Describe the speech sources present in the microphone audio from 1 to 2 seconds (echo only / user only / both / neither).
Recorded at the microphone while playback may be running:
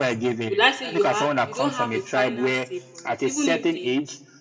both